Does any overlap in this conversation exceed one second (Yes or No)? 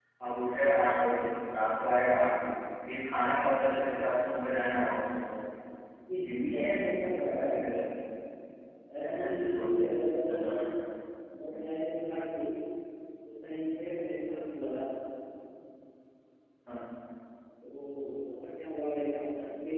Yes